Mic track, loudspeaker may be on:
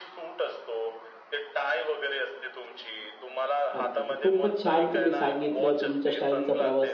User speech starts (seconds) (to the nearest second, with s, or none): 4 s